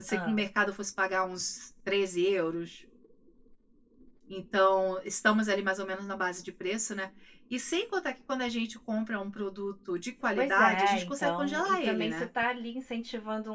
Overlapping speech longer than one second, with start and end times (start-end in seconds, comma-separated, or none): 10.4-12.3